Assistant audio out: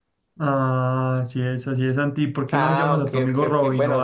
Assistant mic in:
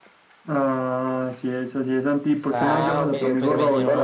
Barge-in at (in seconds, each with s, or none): 2.4 s